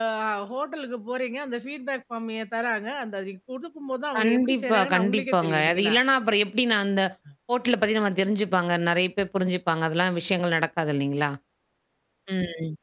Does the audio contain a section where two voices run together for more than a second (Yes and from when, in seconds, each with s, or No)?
Yes, from 4.1 s